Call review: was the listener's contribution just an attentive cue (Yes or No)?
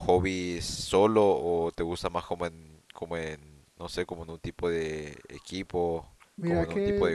No